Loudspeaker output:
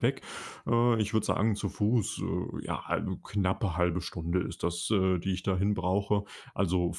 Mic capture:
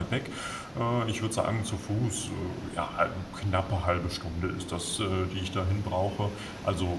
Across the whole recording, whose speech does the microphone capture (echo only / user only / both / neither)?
echo only